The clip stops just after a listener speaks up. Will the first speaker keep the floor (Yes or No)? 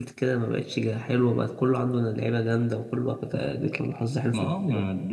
No